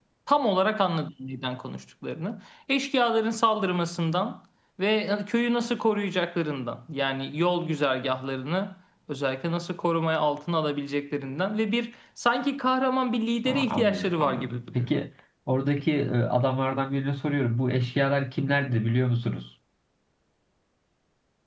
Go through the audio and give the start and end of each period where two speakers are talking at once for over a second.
13.4-14.9

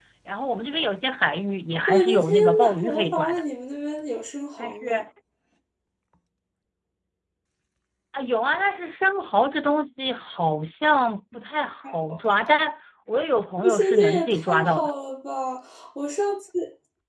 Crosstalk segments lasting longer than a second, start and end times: 1.9-3.4, 13.6-14.9

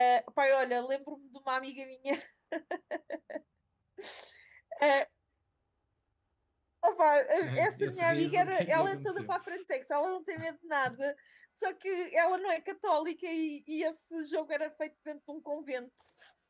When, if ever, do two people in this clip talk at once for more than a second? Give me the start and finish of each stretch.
7.4-9.3

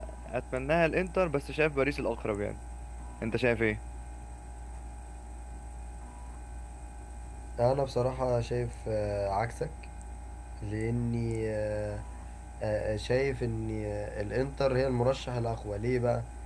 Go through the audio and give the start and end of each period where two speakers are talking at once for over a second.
none

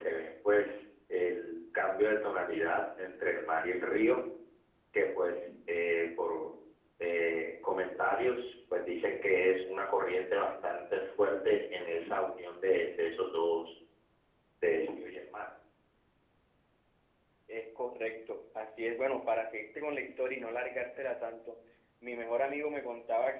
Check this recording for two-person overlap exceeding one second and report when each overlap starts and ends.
none

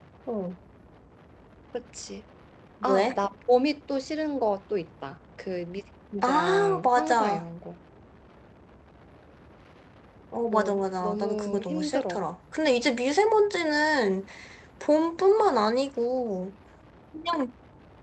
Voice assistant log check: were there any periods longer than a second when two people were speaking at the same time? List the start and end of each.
6.2-7.4, 10.5-12.2

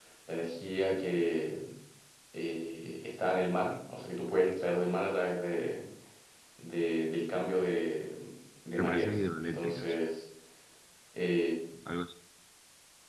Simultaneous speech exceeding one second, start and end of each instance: 8.8-10.0

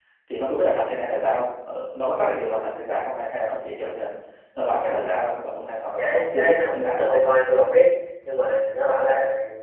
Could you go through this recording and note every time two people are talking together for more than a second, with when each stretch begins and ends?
6.0-7.2

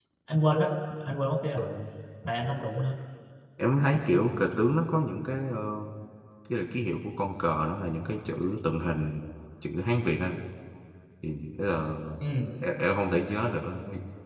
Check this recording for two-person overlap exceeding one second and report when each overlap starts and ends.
none

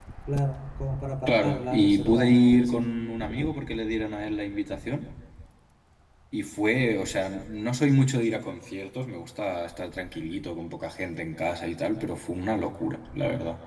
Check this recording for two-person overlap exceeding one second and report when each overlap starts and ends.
1.3-2.8

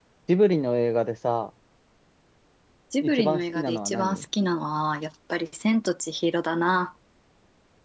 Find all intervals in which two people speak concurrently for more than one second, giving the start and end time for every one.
3.0-4.2

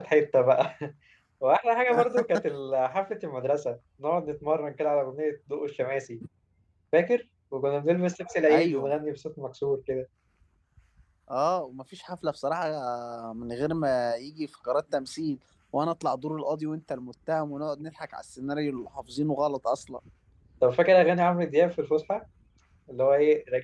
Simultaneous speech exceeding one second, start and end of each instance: none

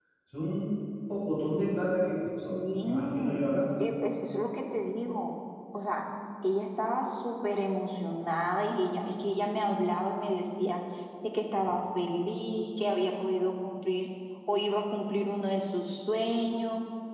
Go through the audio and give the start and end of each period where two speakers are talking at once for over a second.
2.4-3.7

